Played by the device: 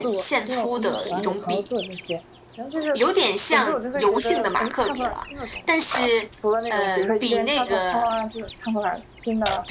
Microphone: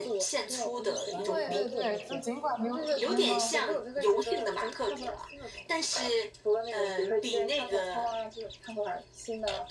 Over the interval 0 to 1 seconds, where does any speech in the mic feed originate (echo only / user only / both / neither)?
echo only